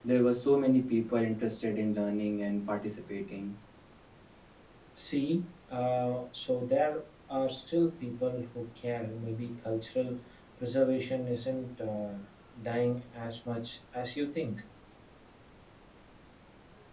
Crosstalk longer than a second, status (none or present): none